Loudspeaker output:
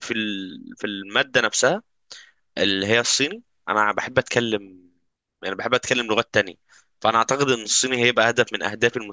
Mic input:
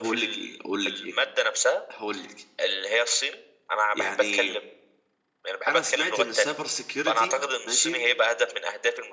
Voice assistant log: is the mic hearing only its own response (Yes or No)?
No